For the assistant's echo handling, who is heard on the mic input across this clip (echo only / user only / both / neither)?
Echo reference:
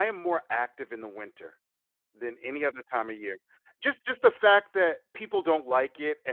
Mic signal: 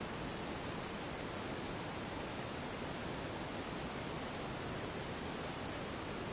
neither